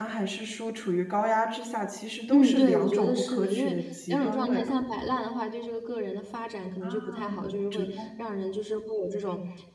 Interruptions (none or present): present